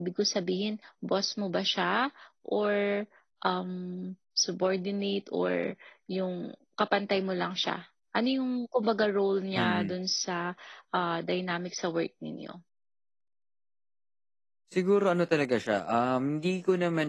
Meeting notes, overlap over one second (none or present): none